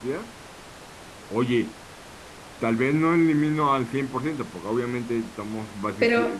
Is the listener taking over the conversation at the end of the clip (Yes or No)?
Yes